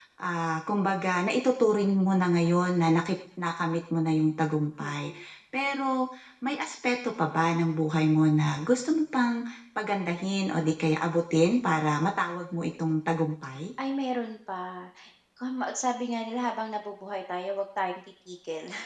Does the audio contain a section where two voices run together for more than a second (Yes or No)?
No